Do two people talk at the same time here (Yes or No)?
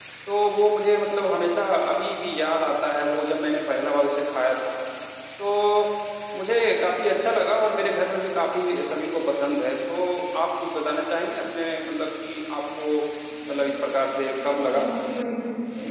Yes